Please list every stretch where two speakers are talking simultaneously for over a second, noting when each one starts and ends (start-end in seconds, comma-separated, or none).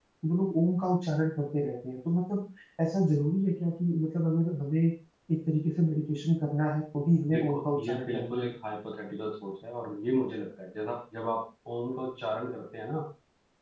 7.3-8.6